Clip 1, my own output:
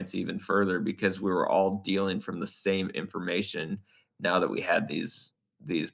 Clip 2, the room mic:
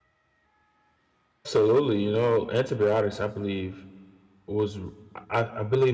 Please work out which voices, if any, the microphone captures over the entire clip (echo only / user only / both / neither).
user only